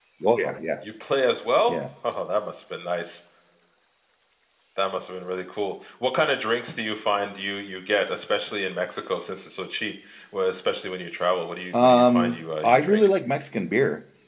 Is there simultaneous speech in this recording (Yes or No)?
Yes